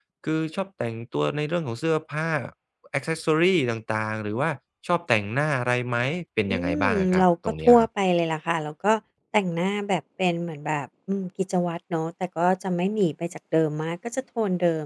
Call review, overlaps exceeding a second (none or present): present